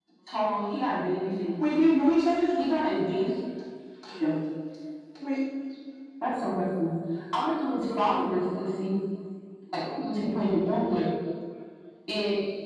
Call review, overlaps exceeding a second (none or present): none